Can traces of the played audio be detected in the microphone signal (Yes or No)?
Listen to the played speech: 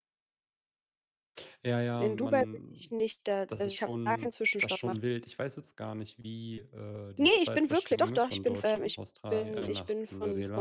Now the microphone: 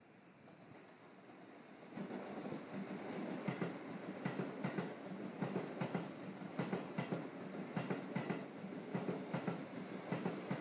No